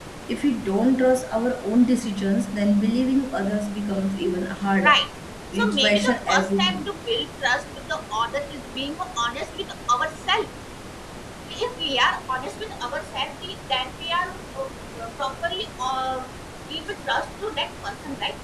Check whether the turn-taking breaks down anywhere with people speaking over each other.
Yes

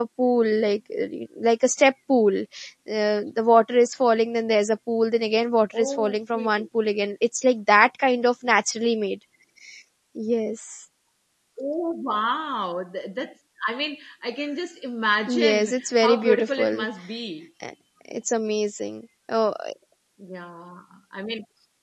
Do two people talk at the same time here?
Yes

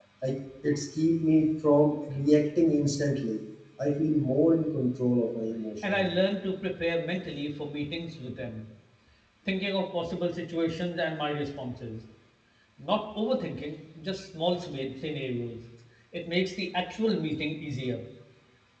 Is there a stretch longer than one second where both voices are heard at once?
No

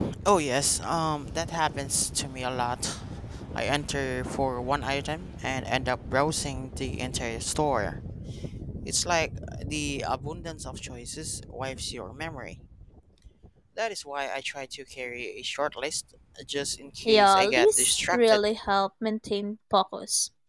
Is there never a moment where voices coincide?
No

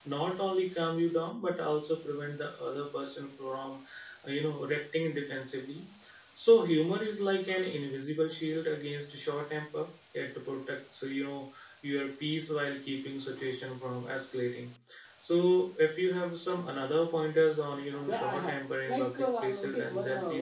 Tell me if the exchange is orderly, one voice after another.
No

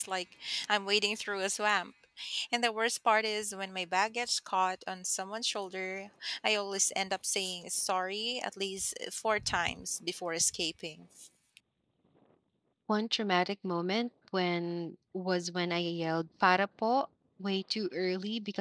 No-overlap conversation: Yes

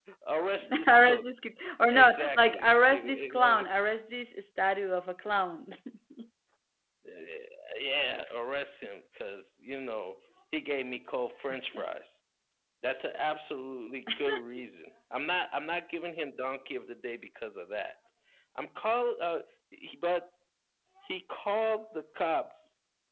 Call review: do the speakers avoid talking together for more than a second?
No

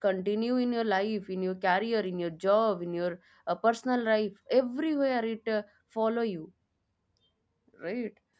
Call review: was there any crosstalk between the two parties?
No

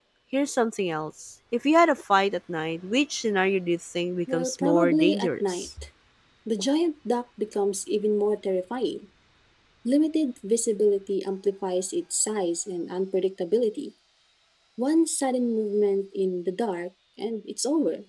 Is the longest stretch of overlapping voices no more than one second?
No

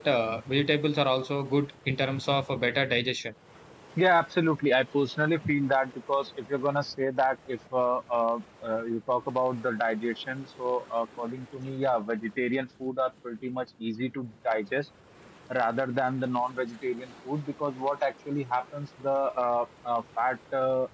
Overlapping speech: No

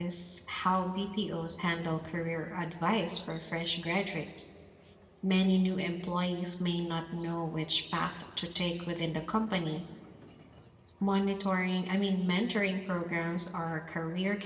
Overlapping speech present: No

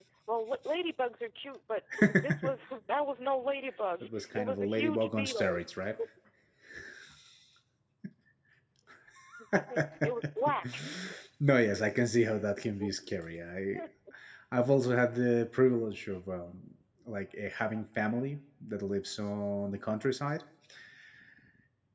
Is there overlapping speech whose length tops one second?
Yes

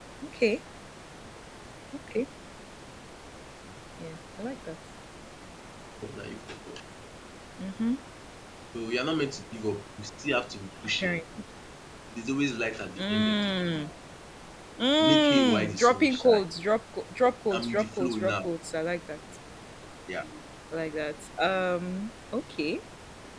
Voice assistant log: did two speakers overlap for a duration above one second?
Yes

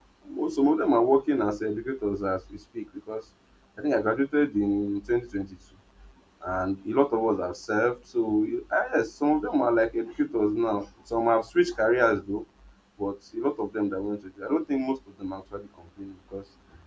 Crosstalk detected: No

